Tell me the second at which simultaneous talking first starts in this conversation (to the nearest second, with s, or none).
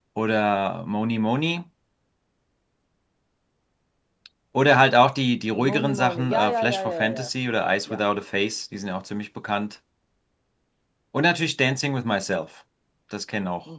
6 s